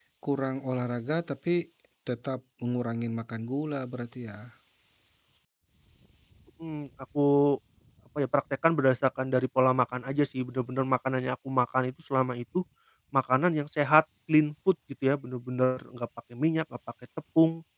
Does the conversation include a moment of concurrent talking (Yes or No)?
No